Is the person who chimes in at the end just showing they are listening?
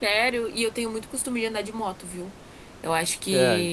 Yes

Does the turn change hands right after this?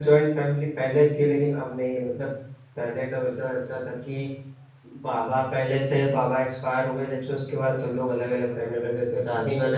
No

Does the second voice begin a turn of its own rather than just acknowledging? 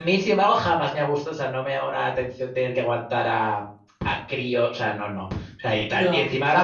No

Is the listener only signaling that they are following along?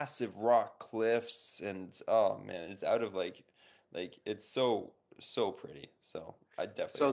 No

